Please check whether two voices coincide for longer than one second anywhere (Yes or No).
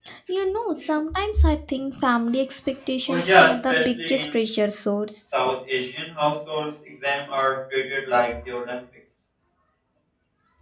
Yes